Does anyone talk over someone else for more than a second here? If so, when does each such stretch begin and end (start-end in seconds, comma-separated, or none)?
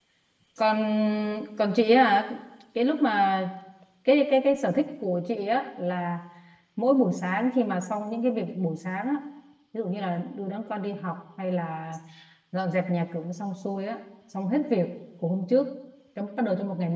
none